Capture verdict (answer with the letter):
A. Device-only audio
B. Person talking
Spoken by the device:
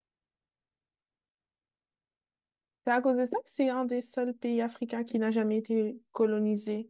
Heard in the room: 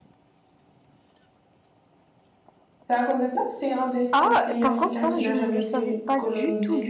B